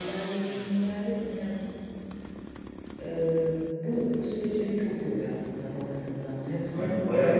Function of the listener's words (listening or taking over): taking over